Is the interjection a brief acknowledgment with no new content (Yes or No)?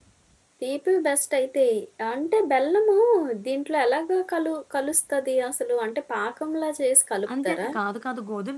No